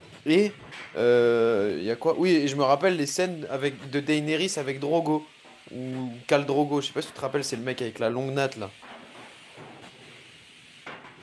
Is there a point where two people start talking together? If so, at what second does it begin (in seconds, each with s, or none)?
none